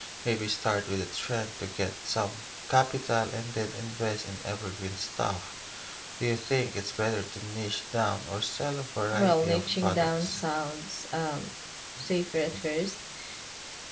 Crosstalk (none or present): present